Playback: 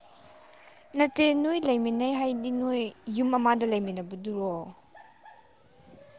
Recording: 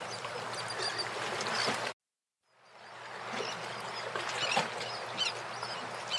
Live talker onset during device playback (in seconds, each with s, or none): none